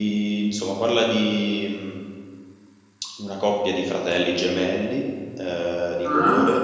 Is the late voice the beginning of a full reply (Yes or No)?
No